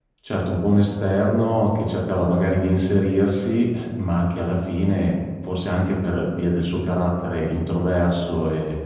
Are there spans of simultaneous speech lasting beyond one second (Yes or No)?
No